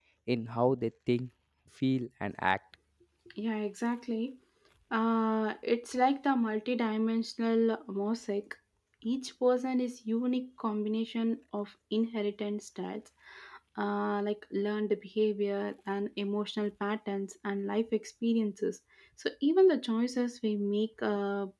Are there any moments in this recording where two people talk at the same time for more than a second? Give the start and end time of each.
none

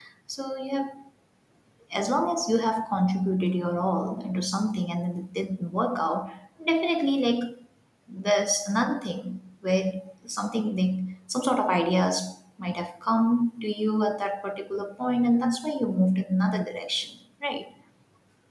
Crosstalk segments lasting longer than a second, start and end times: none

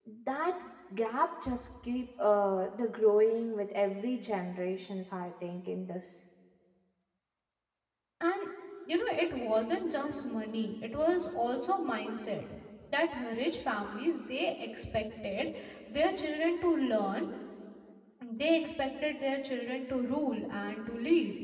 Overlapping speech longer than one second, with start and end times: none

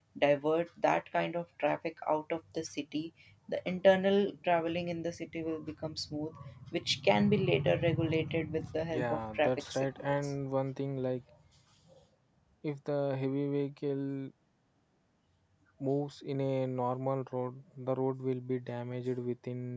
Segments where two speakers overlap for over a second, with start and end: 8.9-10.4

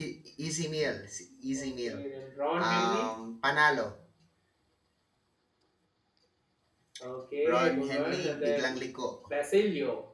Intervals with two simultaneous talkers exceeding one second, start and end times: 7.5-8.8

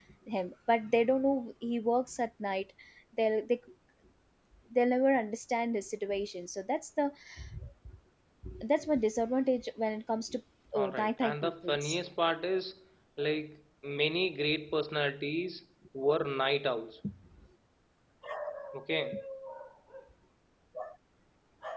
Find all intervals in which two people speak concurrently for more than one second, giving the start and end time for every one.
10.8-12.0

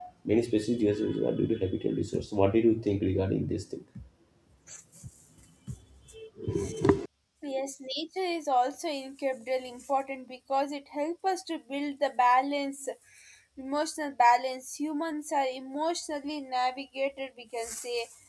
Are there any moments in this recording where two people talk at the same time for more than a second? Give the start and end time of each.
none

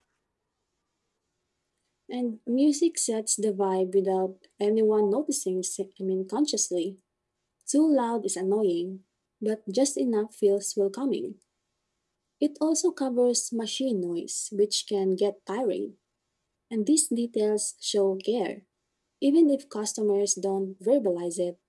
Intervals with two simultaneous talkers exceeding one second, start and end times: none

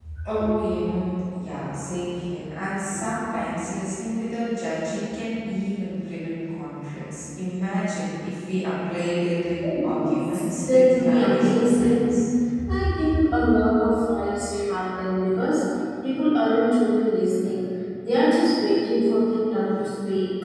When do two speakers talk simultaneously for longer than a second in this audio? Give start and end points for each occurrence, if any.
9.6-12.2

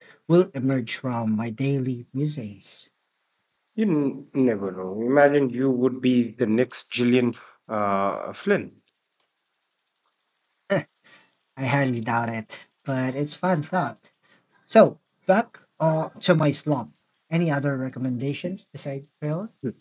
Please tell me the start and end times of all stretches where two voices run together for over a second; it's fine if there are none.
none

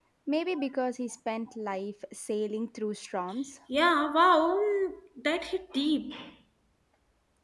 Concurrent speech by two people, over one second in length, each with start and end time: none

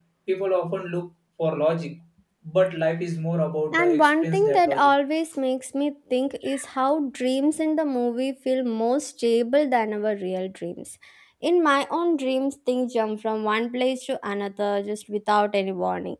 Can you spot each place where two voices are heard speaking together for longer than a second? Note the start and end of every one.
3.7-4.9

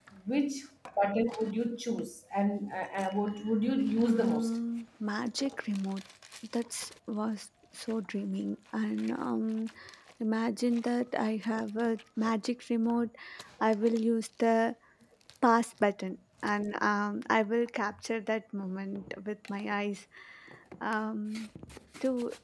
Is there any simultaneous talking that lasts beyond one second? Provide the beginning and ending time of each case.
none

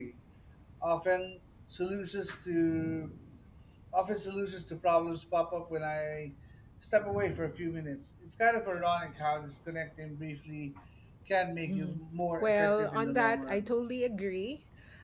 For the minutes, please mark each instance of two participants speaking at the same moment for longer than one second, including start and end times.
12.4-13.7

